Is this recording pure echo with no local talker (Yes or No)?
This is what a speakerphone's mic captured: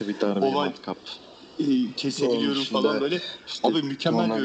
Yes